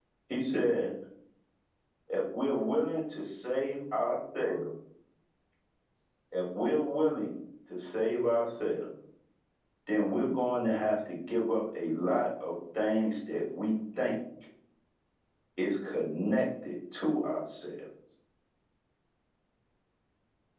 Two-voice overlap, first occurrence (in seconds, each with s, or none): none